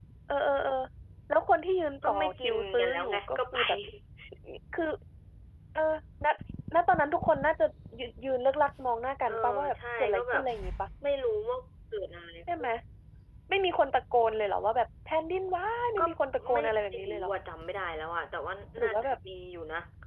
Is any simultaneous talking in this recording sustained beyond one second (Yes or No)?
Yes